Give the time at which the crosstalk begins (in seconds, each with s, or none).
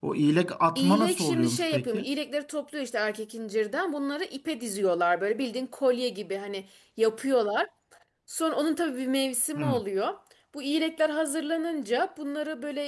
0.8 s